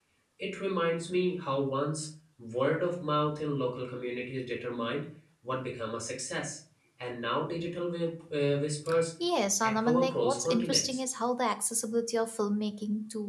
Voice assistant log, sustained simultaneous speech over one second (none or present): present